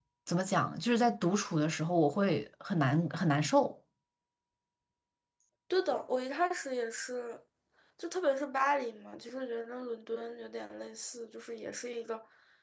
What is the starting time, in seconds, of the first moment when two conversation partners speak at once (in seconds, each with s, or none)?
none